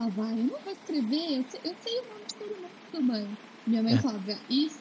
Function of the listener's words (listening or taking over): listening